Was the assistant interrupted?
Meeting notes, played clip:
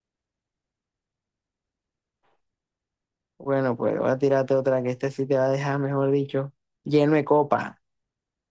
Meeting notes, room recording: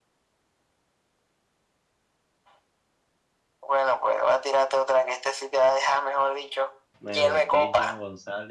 Yes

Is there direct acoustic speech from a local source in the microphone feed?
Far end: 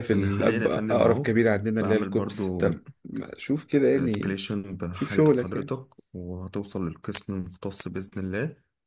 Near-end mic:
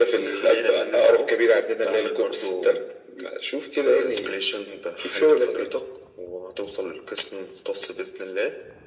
No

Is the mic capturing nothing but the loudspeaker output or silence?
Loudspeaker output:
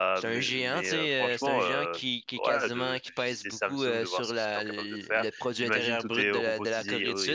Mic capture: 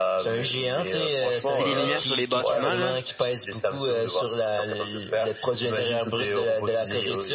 No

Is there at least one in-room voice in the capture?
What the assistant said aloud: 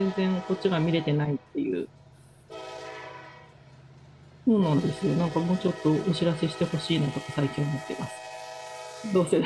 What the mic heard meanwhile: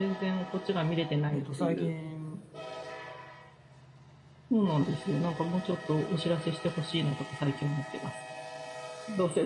Yes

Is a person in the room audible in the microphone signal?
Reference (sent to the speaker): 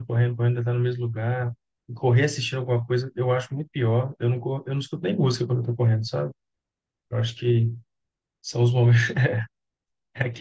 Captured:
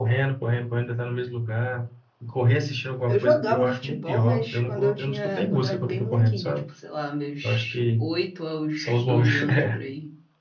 Yes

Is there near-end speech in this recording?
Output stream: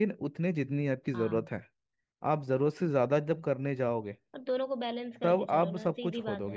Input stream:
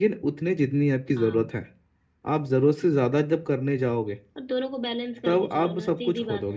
No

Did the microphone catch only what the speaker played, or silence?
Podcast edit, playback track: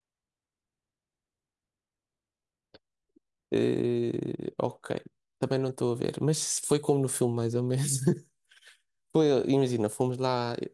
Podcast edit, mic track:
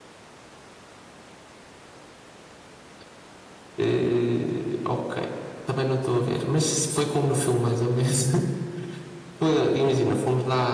Yes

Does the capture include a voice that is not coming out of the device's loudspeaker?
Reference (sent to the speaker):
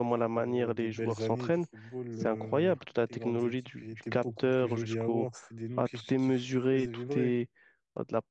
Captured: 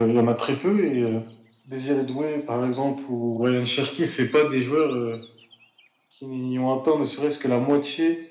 Yes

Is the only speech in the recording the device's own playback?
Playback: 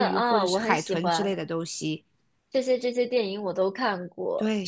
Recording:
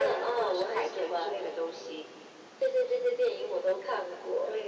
Yes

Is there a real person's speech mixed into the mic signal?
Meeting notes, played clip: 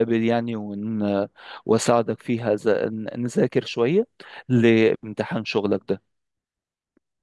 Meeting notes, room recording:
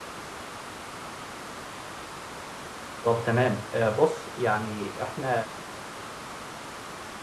Yes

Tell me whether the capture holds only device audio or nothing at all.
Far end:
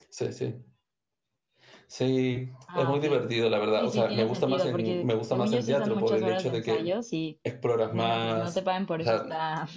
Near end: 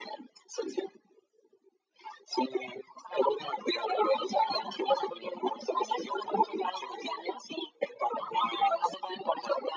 Yes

